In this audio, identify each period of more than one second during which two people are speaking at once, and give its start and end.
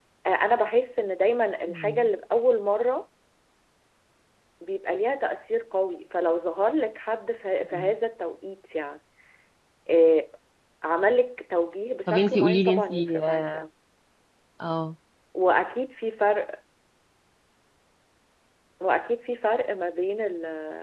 12.1-13.6

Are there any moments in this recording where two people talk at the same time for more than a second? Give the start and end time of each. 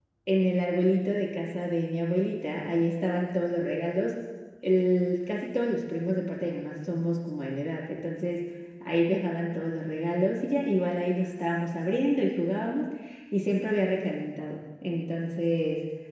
none

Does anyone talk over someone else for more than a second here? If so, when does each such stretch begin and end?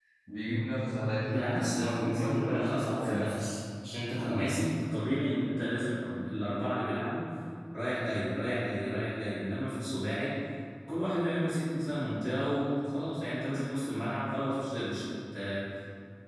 1.3-3.3

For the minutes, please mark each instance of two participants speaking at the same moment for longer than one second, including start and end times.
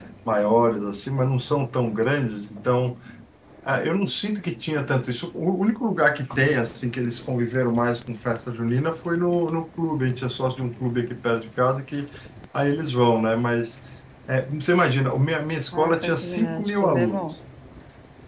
15.7-17.3

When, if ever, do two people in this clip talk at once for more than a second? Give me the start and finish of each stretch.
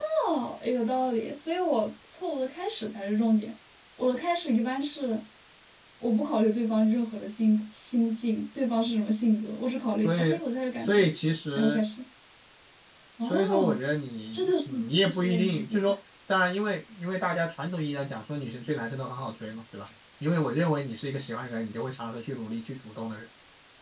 14.3-15.8

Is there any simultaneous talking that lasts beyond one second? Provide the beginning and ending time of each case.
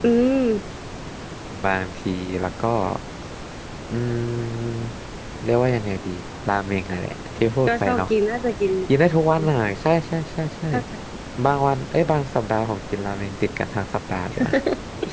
none

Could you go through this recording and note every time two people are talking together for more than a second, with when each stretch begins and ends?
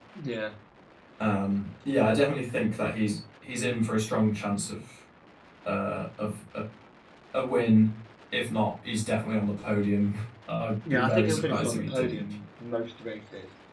10.9-12.3

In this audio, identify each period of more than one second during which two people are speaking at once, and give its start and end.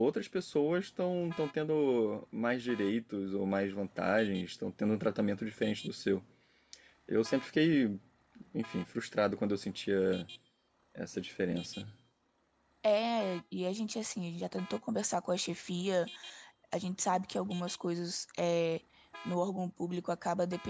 none

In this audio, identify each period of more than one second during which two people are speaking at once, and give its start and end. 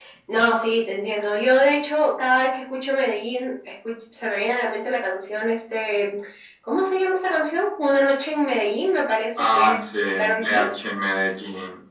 9.4-10.7

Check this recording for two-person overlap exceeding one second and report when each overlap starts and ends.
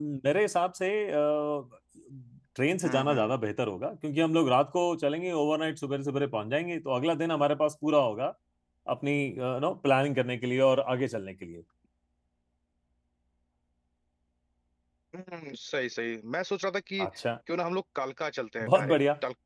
none

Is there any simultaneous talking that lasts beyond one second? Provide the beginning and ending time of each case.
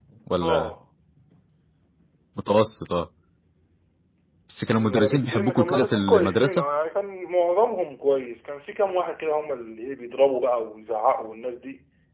4.8-6.7

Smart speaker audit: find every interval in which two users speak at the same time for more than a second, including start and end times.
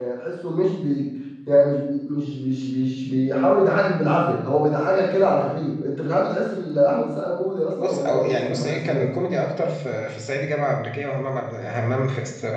7.8-9.1

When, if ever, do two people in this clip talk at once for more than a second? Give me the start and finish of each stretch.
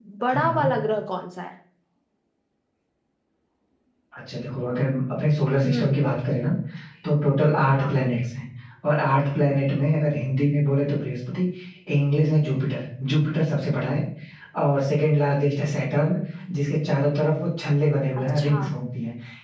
none

